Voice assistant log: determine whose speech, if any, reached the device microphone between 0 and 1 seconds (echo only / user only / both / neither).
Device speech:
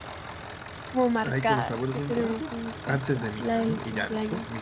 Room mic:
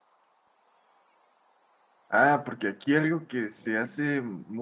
neither